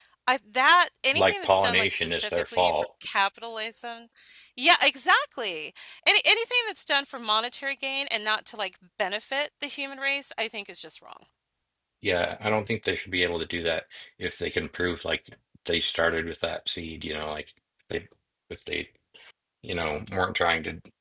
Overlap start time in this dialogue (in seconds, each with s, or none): 1.1 s